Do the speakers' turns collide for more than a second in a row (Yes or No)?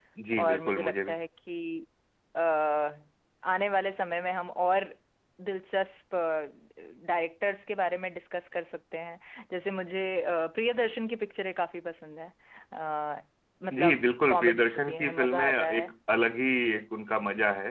Yes